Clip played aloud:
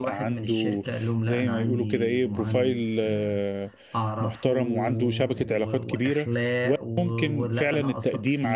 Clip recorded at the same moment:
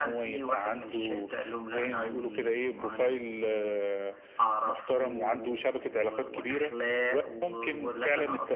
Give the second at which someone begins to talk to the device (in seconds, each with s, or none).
none